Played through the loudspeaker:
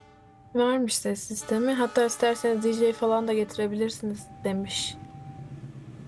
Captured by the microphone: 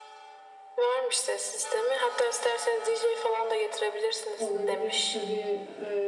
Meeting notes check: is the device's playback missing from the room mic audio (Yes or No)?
No